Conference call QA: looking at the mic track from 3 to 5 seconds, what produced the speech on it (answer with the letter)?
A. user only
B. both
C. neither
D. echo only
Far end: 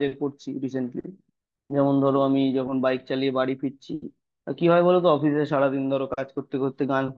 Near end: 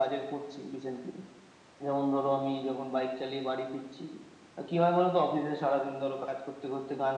D